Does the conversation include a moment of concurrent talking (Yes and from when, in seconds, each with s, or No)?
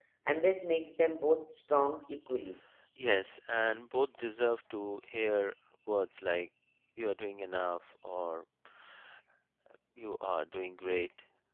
No